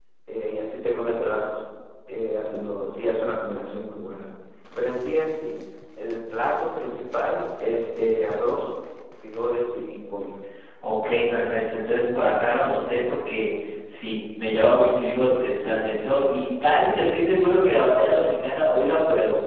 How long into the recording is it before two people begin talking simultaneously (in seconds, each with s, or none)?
none